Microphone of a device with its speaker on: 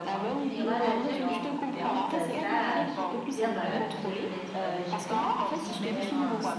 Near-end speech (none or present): present